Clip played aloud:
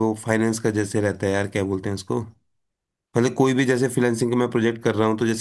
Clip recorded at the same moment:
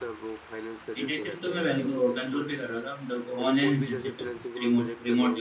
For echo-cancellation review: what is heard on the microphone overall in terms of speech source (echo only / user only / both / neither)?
both